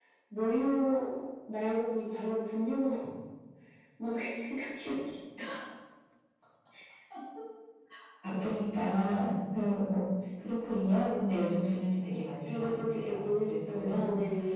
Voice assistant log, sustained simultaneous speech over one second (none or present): present